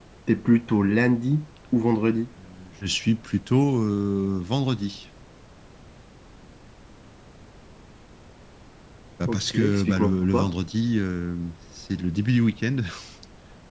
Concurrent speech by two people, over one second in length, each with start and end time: 9.3-10.5

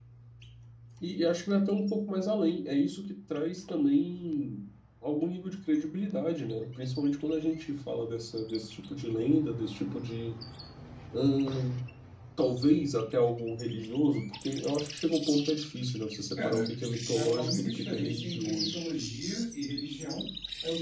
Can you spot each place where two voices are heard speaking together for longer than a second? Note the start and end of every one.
17.1-18.7

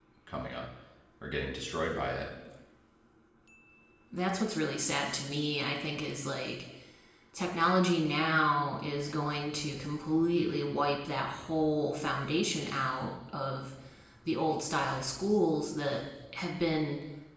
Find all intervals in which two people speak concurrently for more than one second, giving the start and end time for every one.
none

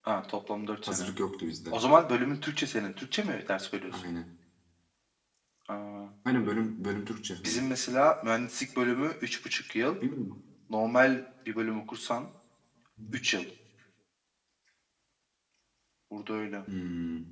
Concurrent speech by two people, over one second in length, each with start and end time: none

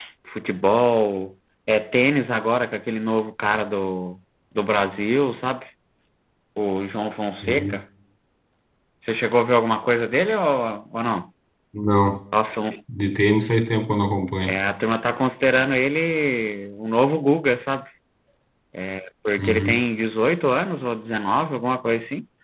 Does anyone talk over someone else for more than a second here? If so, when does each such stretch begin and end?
none

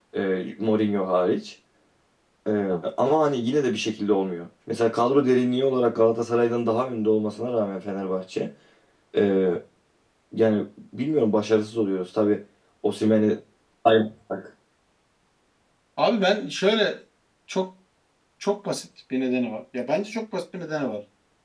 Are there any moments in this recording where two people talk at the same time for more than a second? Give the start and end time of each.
none

